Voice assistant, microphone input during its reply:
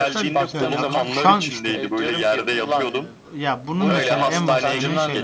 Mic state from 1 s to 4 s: both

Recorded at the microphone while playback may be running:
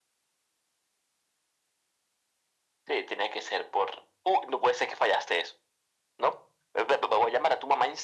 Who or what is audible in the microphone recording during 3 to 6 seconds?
echo only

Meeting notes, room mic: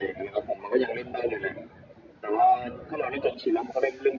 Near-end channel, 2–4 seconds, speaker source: echo only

